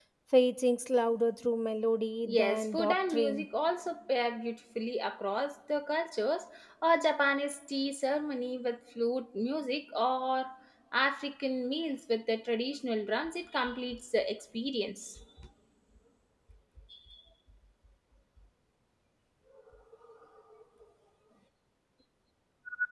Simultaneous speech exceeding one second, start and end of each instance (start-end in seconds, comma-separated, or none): 2.2-3.5